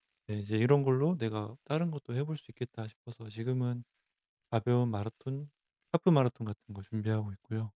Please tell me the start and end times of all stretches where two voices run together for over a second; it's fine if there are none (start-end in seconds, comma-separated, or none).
none